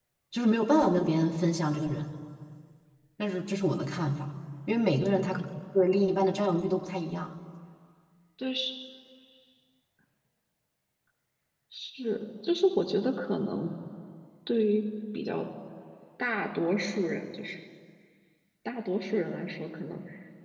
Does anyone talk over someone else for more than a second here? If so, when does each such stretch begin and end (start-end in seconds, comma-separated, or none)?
none